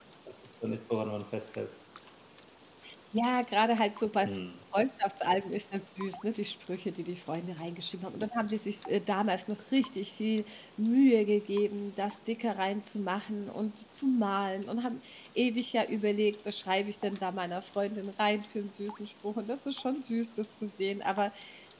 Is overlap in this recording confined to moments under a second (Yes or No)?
Yes